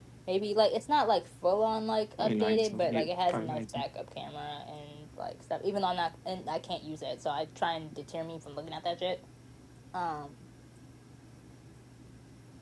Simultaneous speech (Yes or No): Yes